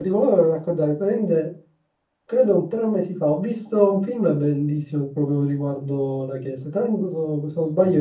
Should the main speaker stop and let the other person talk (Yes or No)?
No